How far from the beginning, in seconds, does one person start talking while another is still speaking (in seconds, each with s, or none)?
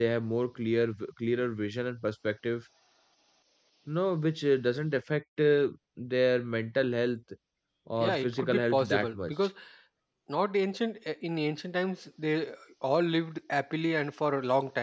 8.0 s